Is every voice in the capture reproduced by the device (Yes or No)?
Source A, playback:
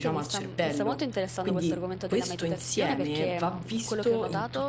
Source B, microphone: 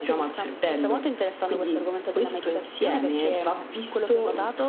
Yes